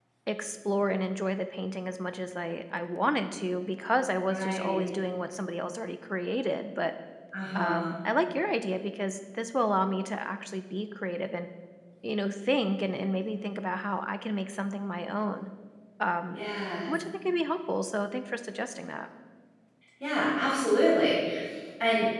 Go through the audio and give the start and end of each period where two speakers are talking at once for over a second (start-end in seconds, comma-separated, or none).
none